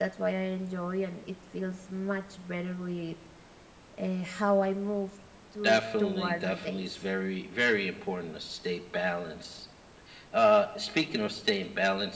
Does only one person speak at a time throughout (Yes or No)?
No